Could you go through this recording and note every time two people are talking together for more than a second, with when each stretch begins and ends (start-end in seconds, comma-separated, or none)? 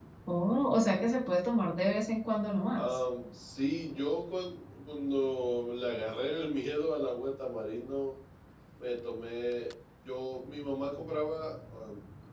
none